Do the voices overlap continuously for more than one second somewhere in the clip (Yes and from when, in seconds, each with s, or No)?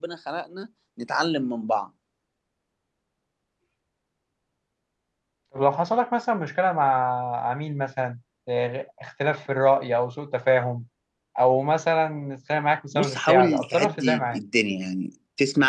Yes, from 12.9 s